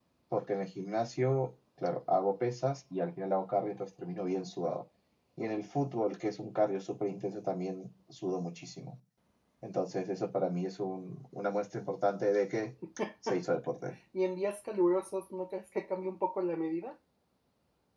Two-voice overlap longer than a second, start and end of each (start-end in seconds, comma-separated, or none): none